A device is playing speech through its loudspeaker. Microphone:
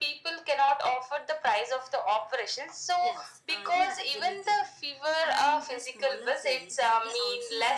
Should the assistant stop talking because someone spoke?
Yes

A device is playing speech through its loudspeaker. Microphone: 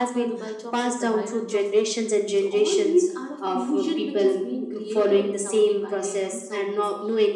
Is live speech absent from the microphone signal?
Yes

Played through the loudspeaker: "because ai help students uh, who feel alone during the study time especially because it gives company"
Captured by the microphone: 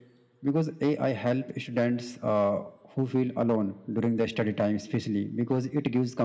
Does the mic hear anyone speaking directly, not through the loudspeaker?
No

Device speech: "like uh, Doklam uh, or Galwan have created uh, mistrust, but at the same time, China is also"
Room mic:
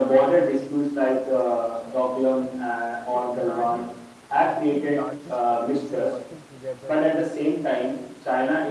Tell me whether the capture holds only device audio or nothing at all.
No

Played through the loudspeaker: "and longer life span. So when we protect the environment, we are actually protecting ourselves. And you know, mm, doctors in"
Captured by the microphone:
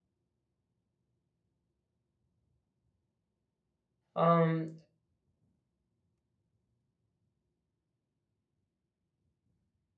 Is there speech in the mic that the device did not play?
Yes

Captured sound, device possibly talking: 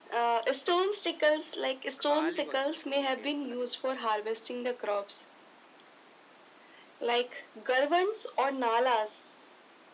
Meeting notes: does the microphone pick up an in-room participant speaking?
Yes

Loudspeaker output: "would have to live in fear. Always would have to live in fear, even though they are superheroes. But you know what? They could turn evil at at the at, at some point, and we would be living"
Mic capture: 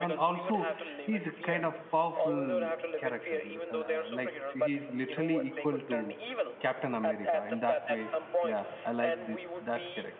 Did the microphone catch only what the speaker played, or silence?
No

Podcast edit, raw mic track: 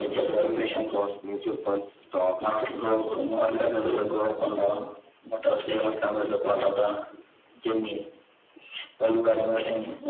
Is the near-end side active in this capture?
No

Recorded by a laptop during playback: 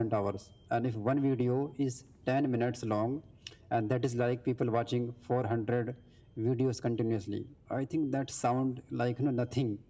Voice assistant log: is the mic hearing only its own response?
Yes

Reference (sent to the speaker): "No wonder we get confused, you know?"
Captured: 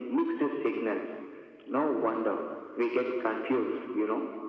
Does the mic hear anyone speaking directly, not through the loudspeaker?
No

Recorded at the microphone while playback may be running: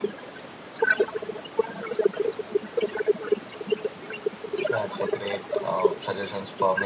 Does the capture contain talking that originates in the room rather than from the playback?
Yes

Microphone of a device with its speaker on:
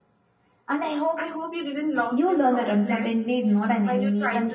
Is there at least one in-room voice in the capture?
No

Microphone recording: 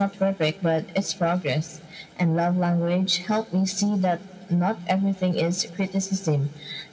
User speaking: No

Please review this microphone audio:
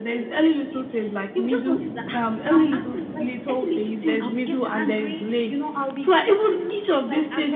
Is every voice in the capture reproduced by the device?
Yes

